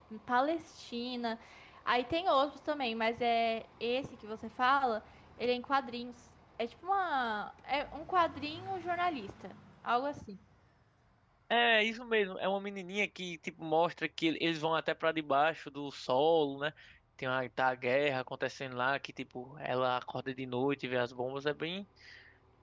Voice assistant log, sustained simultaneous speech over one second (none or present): none